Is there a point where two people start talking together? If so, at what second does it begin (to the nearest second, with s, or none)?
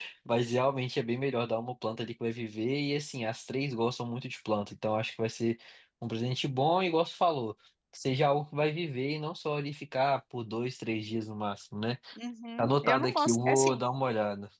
13 s